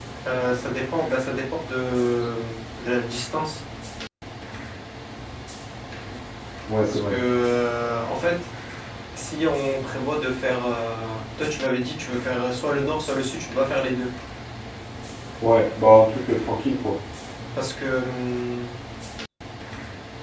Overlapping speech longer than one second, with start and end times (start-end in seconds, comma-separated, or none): none